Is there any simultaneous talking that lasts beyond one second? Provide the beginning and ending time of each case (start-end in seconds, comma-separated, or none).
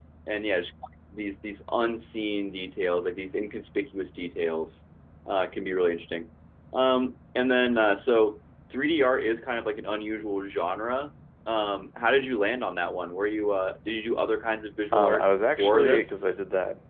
14.9-16.2